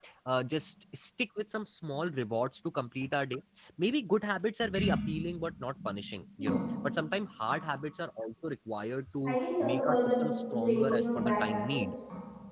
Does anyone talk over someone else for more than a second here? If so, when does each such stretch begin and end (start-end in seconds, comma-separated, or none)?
9.2-11.9